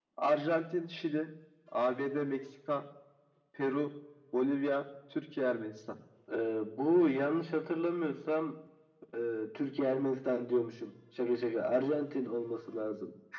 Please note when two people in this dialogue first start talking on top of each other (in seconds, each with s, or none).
none